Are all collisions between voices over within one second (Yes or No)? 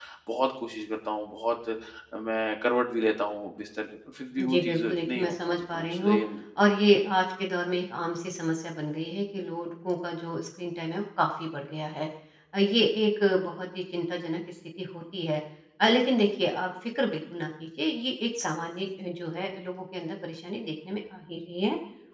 No